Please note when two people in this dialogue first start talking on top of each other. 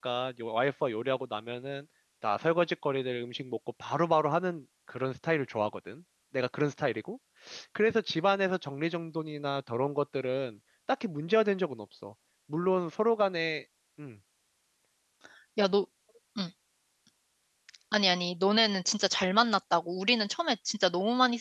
none

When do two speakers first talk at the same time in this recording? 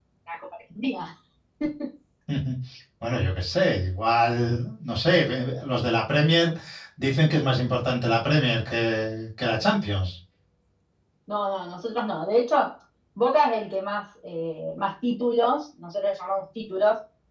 none

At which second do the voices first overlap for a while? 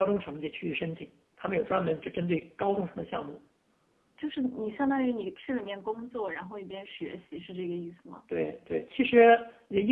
none

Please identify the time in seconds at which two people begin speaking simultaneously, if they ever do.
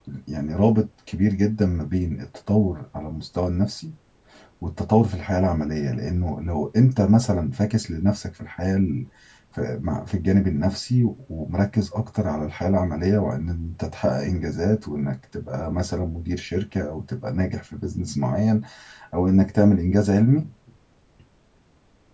none

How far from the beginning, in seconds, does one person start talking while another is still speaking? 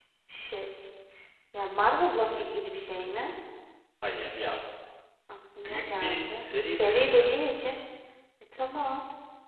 5.6 s

